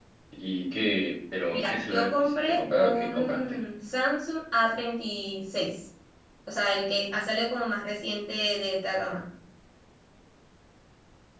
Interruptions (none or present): present